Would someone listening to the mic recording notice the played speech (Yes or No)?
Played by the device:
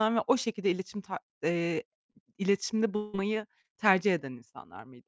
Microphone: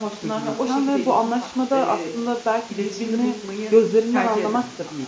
Yes